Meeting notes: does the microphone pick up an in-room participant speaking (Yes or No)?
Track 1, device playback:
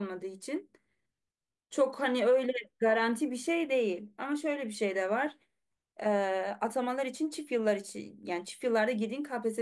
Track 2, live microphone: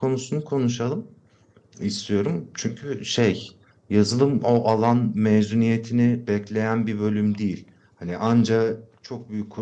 Yes